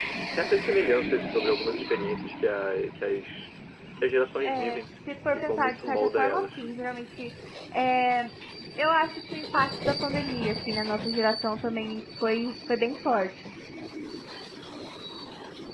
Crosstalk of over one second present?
Yes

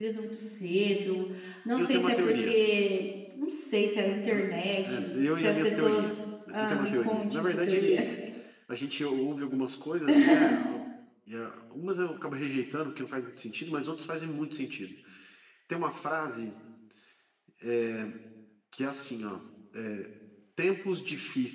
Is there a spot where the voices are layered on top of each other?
Yes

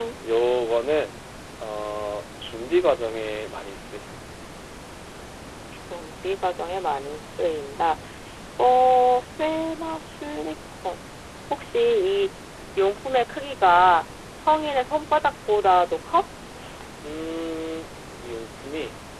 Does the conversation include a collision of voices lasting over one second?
No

